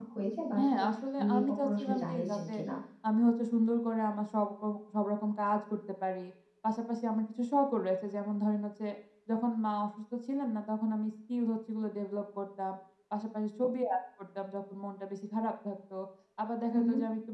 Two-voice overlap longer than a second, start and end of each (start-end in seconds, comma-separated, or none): 0.6-2.5